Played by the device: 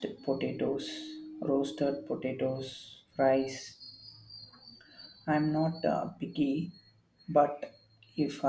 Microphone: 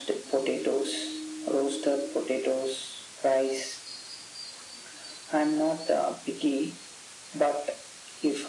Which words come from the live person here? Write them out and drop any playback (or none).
none